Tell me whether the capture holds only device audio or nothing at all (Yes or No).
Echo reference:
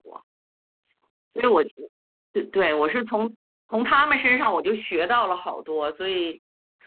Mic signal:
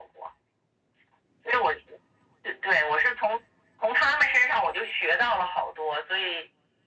Yes